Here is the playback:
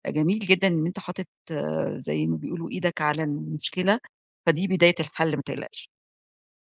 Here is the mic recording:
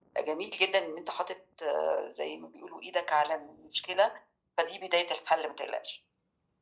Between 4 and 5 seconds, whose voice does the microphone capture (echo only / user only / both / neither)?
echo only